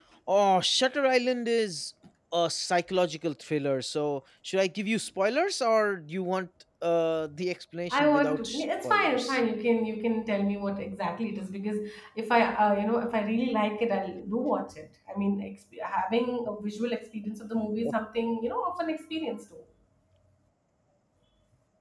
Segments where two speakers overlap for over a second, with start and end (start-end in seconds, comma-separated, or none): 7.9-9.4